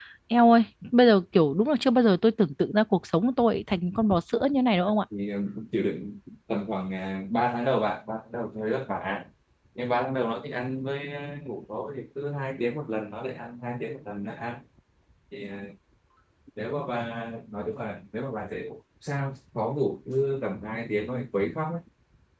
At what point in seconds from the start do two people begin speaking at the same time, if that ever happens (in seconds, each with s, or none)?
none